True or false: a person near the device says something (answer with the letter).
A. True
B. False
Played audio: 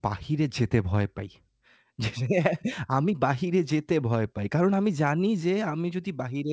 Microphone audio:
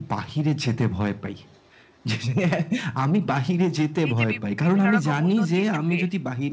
A